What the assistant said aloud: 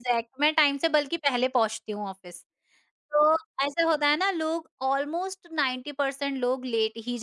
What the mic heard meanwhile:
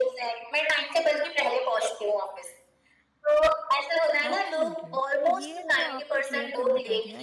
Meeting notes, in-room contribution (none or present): present